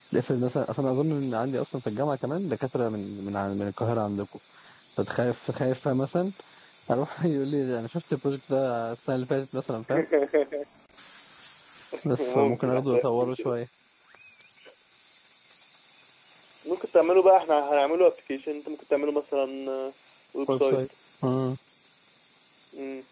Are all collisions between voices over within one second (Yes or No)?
No